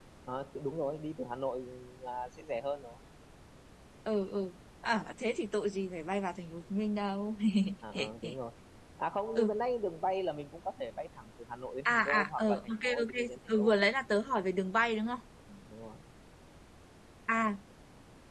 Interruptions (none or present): present